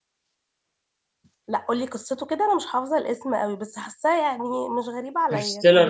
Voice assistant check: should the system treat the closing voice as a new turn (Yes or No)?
Yes